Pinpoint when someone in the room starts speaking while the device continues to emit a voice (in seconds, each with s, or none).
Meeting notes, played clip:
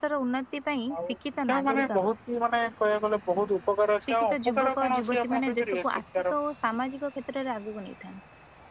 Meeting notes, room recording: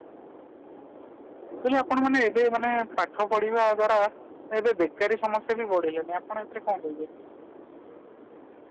1.6 s